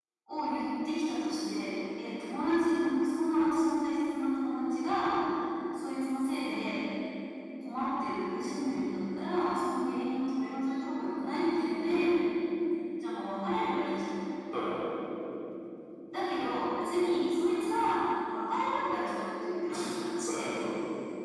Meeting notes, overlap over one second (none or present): none